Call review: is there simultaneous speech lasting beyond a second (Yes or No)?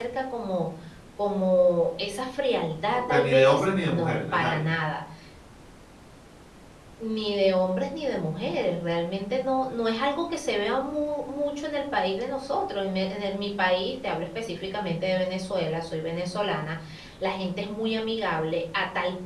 Yes